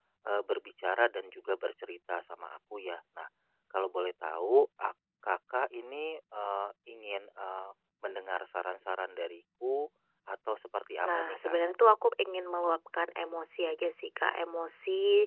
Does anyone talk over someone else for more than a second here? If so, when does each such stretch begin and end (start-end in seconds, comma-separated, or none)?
none